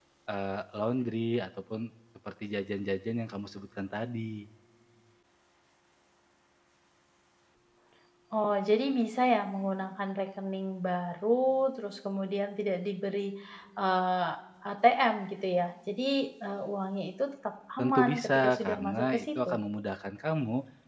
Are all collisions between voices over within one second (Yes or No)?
No